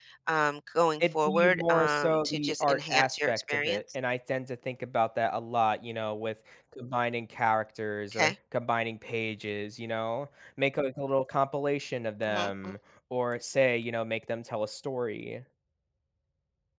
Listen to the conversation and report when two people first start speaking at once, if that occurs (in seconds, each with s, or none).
1.0 s